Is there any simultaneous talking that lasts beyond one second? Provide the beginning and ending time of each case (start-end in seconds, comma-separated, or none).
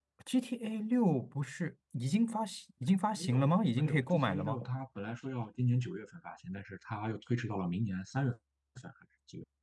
3.2-4.6